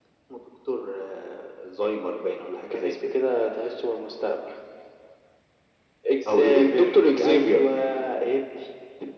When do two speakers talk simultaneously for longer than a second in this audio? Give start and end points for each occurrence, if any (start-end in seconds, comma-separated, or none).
6.3-7.7